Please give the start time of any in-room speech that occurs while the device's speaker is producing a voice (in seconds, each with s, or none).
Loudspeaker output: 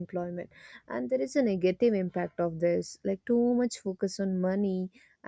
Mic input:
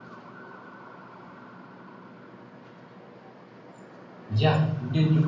4.3 s